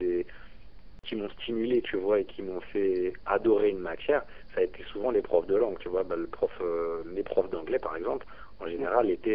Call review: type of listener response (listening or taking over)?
listening